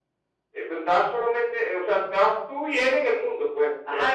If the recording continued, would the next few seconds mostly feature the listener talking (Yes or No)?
Yes